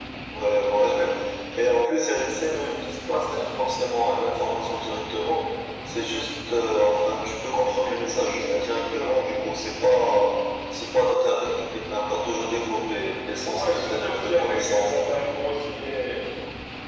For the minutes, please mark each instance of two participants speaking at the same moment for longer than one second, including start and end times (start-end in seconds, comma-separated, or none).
13.5-15.1